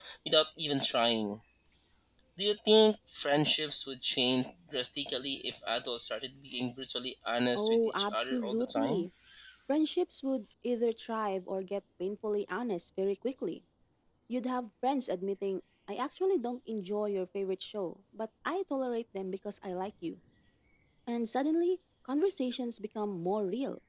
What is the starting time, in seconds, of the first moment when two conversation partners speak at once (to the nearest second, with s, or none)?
8 s